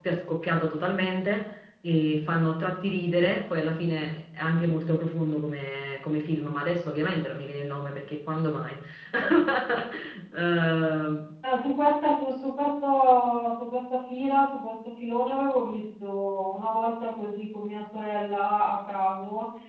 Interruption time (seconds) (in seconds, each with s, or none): none